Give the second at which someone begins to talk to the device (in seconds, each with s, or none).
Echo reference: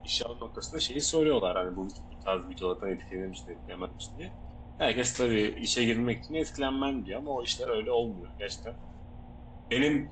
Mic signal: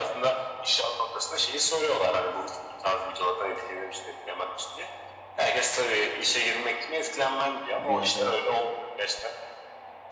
7.7 s